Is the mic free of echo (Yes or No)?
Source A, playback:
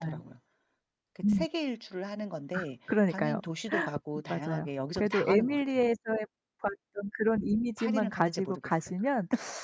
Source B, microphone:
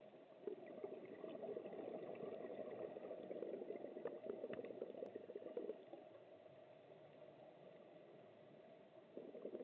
Yes